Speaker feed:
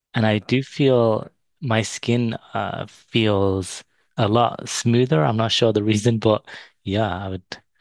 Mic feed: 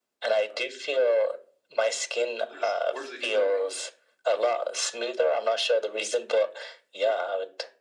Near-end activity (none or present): present